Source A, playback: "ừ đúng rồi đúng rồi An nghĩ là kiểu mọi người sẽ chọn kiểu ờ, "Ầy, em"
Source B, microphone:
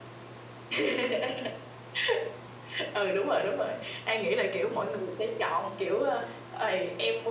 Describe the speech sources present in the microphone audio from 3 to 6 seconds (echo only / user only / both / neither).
echo only